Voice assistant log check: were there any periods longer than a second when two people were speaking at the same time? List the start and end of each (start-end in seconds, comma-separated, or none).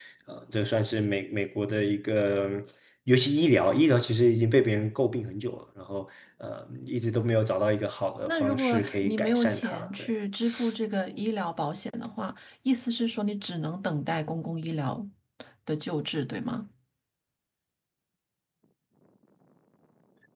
8.3-10.1